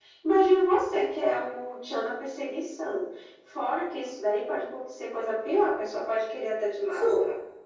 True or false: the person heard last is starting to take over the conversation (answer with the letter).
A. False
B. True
B